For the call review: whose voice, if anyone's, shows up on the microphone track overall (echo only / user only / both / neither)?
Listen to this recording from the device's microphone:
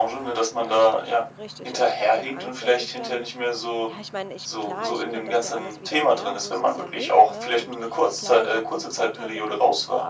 both